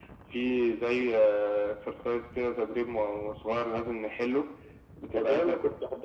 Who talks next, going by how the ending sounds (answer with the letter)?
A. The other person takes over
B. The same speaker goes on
A